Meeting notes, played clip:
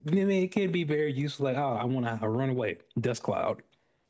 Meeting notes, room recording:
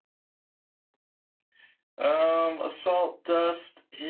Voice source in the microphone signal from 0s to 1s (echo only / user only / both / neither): neither